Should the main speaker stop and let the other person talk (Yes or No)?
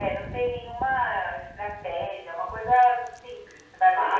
Yes